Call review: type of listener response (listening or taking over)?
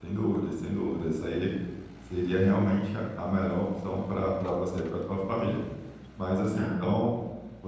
listening